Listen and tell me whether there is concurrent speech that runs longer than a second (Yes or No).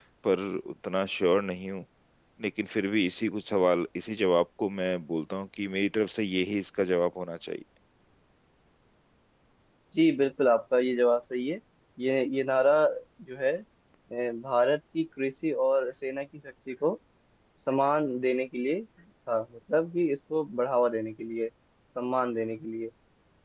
No